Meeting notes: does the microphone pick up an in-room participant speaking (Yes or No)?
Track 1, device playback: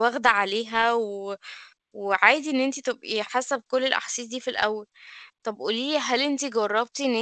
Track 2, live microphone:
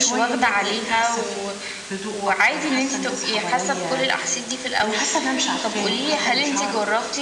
Yes